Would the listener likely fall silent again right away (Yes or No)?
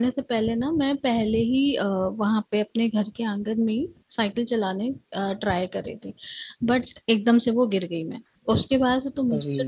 Yes